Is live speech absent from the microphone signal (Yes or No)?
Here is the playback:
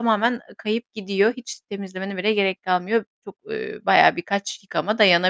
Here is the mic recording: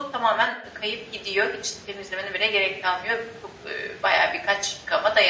Yes